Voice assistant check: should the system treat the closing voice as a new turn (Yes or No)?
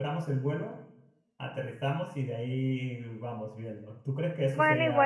Yes